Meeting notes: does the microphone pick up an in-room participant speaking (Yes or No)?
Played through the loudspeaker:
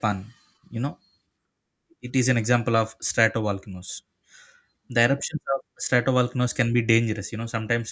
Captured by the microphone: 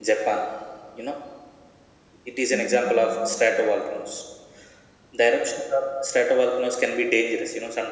Yes